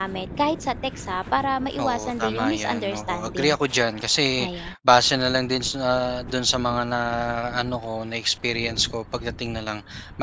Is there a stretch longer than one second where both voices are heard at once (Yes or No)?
Yes